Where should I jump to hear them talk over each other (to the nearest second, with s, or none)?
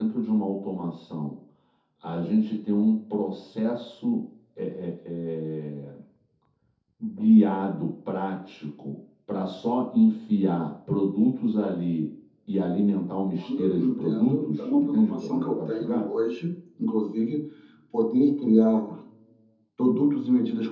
13 s